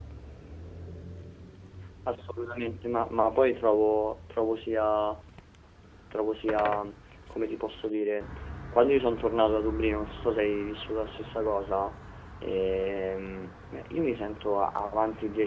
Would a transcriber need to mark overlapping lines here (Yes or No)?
No